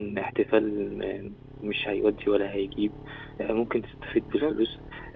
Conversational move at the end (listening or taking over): listening